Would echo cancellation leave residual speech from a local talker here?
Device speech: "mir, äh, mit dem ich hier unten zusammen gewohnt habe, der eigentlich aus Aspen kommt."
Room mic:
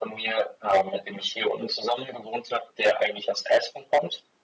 No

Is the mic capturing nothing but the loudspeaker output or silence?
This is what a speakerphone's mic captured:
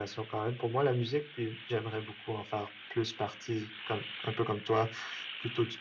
Yes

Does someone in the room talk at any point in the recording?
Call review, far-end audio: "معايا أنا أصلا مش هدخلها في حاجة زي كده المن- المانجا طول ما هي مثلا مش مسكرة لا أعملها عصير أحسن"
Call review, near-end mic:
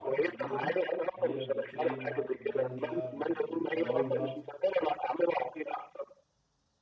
Yes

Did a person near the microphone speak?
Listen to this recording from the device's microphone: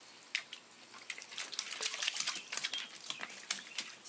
No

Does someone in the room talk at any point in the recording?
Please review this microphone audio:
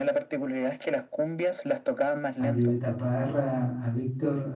Yes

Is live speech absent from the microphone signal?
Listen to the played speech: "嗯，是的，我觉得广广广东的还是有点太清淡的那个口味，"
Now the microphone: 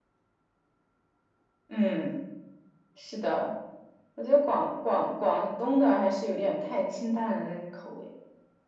Yes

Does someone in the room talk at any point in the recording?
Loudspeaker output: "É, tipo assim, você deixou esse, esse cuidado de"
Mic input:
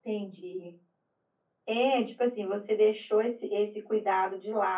No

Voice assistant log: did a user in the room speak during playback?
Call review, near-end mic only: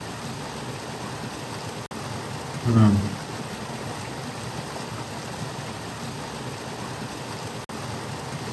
Yes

